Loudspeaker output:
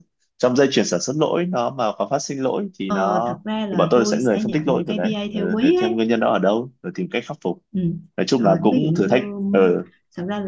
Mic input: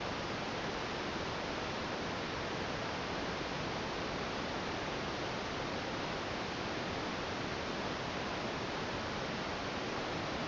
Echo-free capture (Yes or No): Yes